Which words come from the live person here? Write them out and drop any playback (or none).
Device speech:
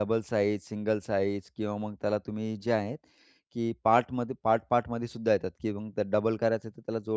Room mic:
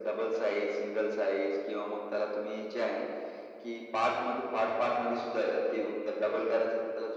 none